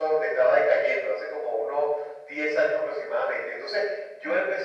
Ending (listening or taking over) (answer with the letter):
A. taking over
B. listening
B